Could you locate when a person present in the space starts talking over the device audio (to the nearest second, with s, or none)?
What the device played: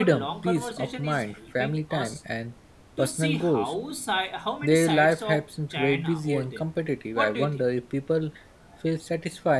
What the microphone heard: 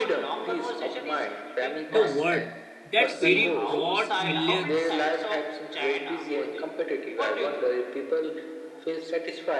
2 s